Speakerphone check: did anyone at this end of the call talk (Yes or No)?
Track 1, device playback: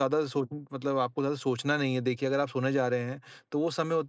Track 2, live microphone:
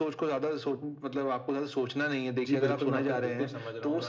Yes